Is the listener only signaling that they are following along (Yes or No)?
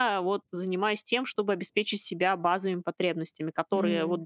Yes